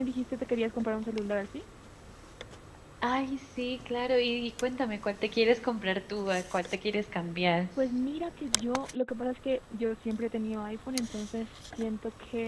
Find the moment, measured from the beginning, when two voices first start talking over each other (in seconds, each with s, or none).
none